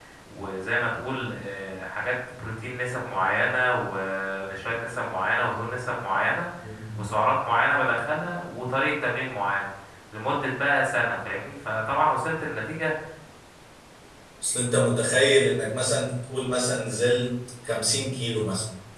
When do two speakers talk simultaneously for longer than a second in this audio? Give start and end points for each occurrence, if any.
none

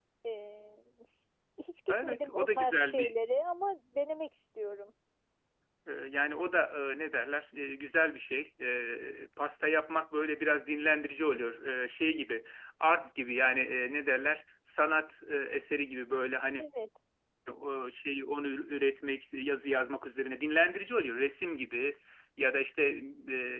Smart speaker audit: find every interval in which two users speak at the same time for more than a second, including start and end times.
1.9-3.1

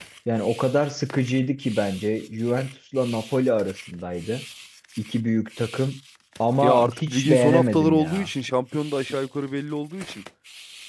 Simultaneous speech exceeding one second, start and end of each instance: 6.6-8.3

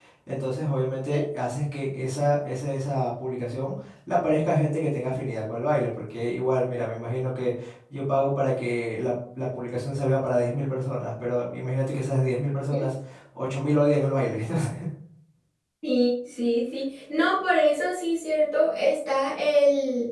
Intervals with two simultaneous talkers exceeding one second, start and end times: none

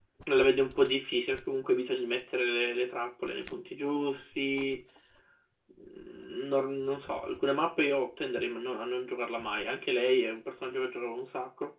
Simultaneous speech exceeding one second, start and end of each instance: none

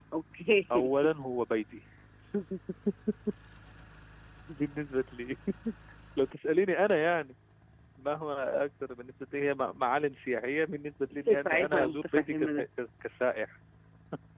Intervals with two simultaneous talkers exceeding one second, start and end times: 11.3-12.7

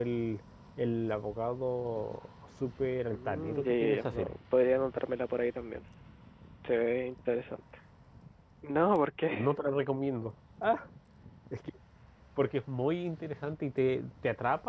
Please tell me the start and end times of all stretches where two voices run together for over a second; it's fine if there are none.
3.1-4.3

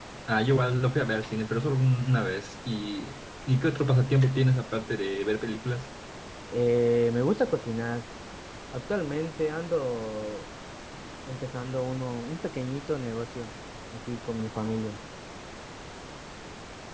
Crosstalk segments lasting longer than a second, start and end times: none

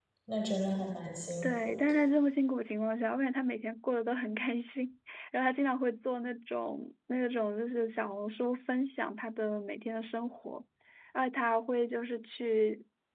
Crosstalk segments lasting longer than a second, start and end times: none

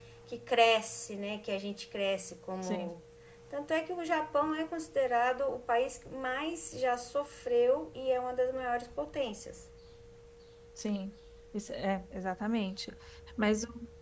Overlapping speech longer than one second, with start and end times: none

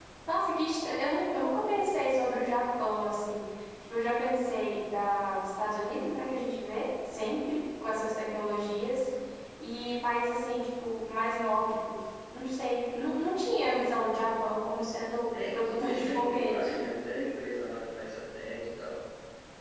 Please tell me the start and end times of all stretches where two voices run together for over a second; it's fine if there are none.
15.3-16.8

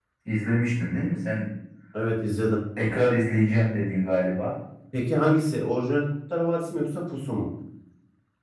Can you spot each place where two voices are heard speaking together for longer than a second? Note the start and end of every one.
none

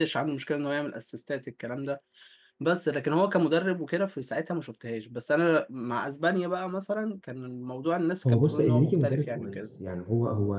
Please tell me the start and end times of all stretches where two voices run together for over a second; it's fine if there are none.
8.2-9.6

